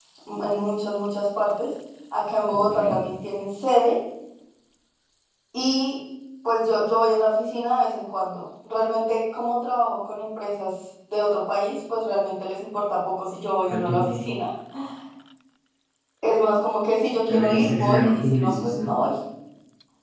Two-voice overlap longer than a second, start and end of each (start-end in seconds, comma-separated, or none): 17.3-18.9